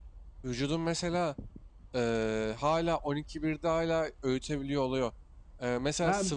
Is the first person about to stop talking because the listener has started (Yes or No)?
No